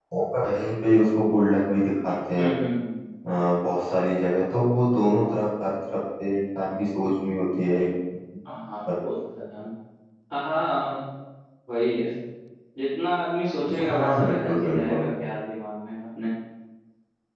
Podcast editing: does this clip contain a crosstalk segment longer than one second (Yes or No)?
Yes